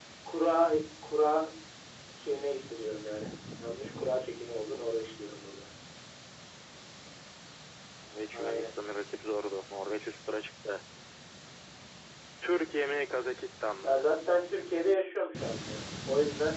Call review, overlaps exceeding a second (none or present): none